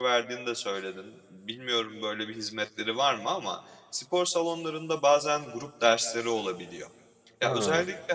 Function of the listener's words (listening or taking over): listening